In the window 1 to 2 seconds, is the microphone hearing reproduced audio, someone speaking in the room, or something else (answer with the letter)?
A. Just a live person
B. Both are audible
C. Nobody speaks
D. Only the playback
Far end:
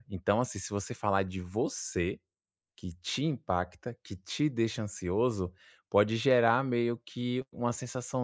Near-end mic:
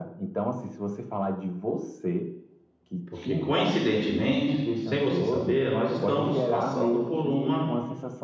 D